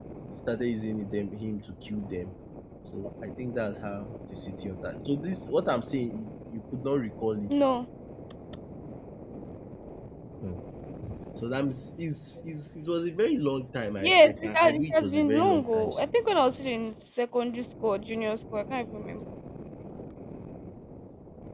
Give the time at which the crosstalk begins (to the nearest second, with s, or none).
14 s